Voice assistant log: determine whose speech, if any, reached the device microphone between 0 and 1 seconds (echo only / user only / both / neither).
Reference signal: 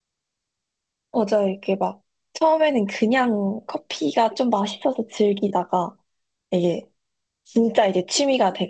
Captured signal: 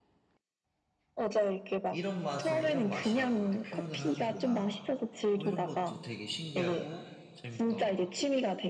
neither